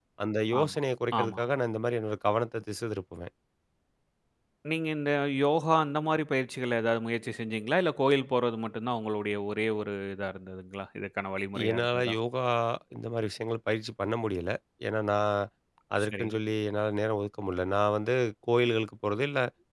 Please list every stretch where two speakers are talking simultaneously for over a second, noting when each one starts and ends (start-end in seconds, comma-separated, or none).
none